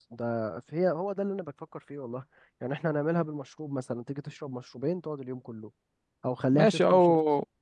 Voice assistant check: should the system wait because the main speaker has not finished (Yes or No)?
No